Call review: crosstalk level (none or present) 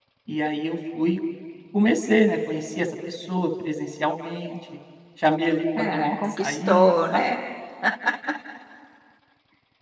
present